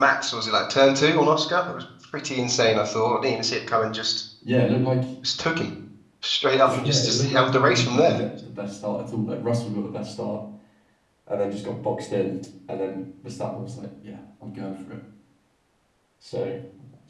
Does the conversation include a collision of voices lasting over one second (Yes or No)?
Yes